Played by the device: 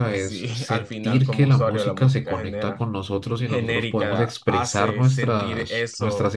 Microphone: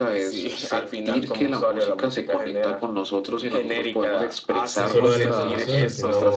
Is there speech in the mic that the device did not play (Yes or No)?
Yes